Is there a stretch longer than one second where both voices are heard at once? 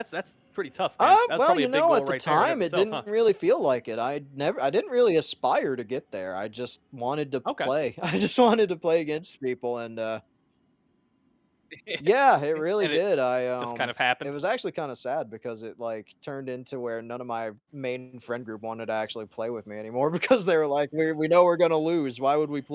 Yes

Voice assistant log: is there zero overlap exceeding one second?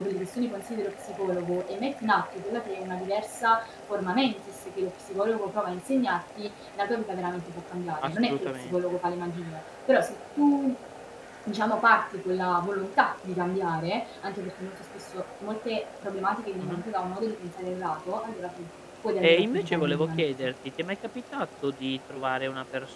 No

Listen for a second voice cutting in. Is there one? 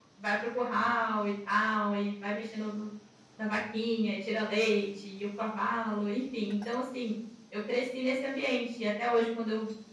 No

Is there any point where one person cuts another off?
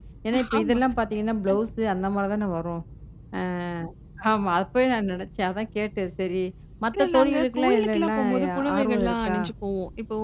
Yes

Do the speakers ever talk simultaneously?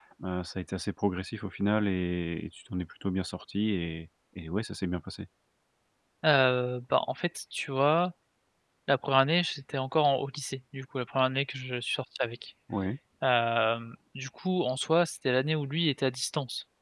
No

